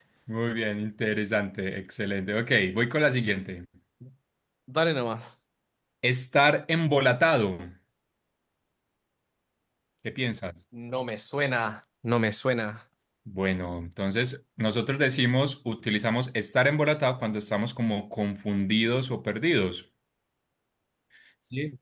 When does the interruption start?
none

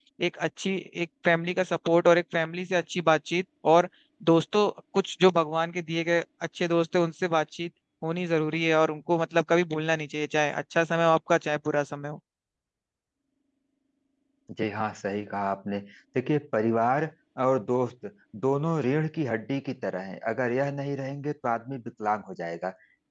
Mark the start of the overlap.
none

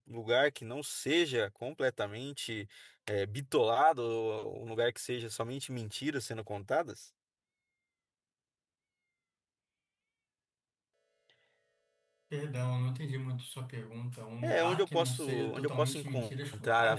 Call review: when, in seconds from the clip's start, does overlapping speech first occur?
14.4 s

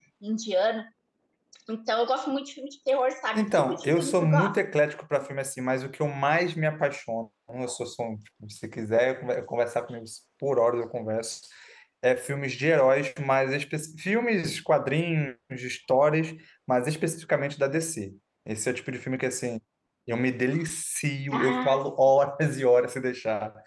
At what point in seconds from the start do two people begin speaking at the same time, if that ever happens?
3.3 s

